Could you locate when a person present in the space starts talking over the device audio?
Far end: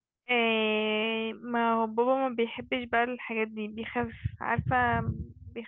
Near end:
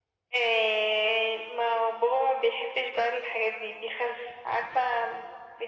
none

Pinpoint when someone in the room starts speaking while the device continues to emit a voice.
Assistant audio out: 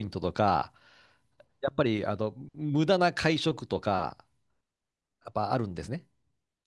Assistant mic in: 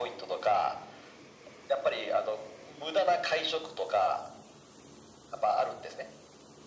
none

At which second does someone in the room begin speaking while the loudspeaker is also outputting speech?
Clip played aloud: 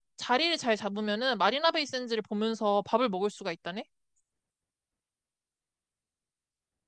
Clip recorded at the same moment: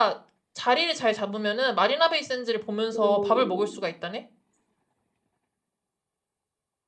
2.9 s

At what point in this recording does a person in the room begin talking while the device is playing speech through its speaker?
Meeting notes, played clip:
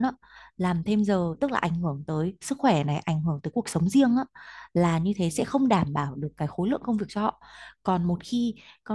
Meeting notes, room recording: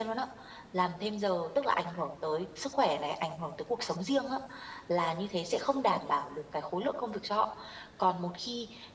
none

